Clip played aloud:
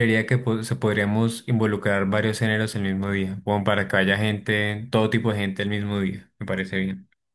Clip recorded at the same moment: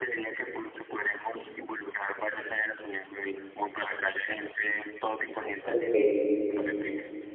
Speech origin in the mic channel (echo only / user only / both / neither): both